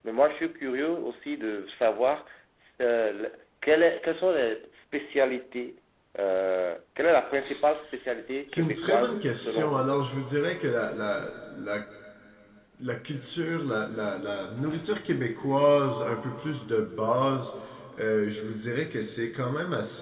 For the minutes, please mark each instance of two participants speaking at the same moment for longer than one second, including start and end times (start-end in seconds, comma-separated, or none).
8.5-9.8